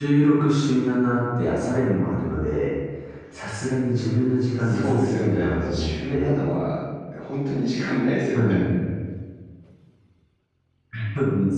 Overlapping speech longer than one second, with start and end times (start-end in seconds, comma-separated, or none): 4.6-6.4